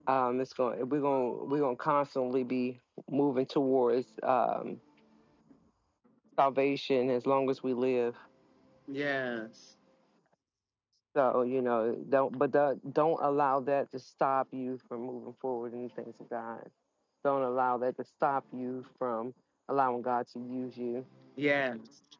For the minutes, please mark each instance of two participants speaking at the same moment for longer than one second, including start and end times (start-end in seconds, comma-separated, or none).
none